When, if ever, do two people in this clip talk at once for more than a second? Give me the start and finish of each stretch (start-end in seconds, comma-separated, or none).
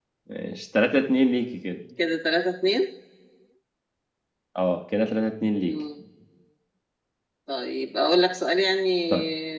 none